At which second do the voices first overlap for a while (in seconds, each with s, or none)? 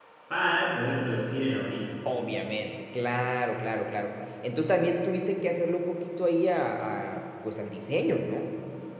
none